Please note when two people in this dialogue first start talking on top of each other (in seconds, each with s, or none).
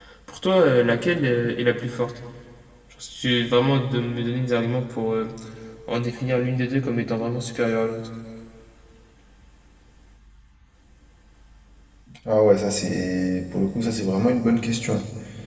none